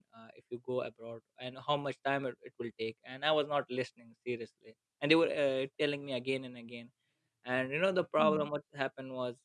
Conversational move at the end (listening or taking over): listening